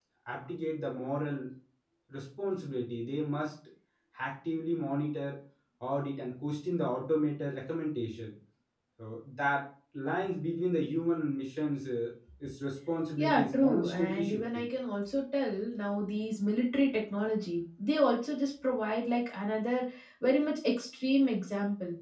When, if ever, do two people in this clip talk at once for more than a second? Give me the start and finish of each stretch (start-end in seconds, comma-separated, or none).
13.2-14.7